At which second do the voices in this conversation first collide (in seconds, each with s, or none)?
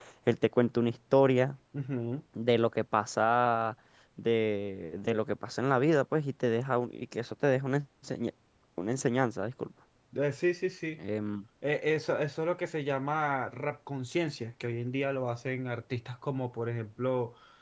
none